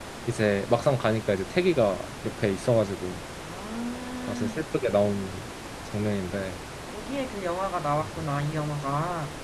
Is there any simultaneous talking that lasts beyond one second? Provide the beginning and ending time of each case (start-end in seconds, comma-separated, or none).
none